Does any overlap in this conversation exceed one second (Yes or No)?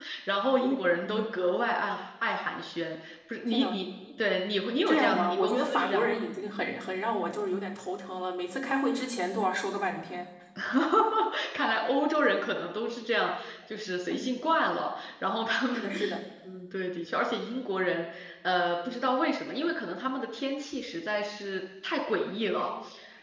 Yes